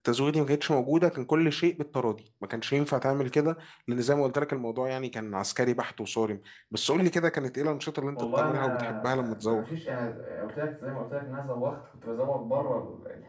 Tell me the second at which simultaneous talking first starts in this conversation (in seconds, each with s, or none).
8.2 s